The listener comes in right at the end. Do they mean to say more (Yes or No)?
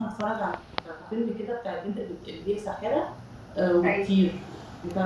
No